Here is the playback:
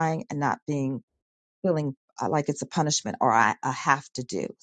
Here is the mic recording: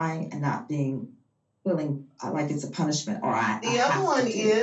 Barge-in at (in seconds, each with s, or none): 3.6 s